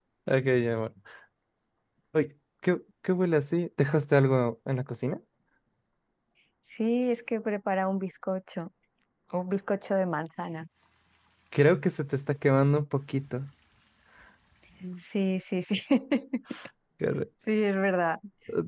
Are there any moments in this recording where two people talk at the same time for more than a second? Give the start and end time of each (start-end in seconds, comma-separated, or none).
none